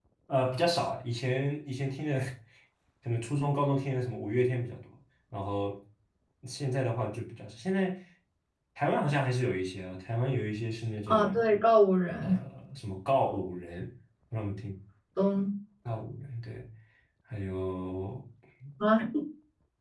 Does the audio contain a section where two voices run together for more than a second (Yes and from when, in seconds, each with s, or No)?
No